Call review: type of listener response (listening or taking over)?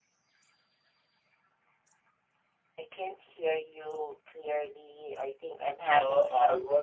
taking over